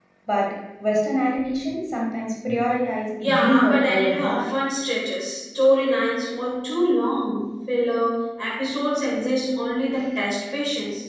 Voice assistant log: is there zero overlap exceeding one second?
No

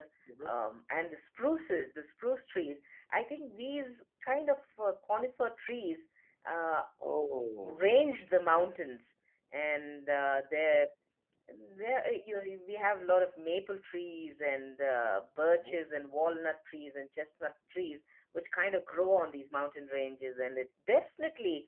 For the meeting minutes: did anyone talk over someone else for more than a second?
No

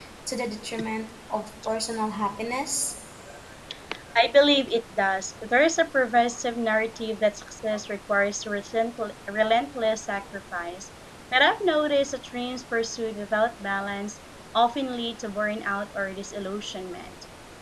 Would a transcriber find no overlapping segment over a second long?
Yes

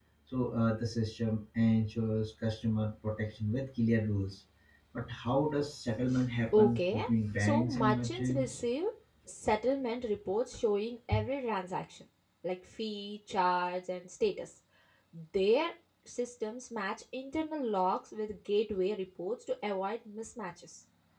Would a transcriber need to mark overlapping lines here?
Yes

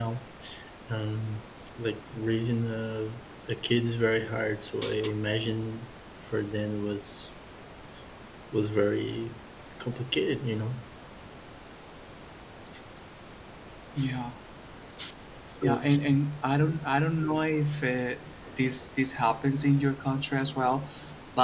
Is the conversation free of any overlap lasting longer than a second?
Yes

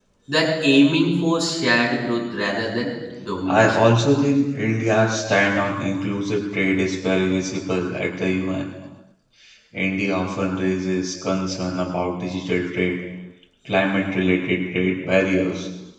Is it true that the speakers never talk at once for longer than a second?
Yes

